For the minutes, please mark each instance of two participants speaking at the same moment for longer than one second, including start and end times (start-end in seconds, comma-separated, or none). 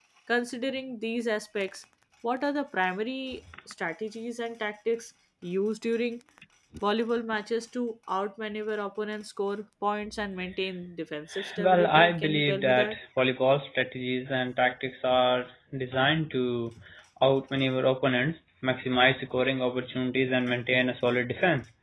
11.6-13.0